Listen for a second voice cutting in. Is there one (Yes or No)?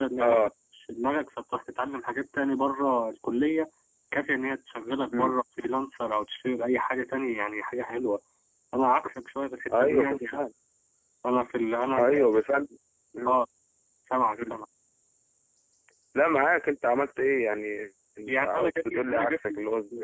Yes